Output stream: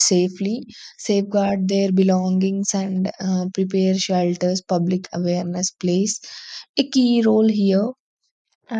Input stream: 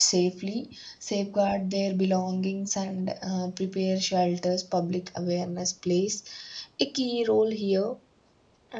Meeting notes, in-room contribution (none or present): none